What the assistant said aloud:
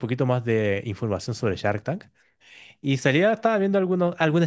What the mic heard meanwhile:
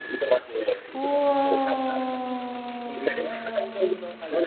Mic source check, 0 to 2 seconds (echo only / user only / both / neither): both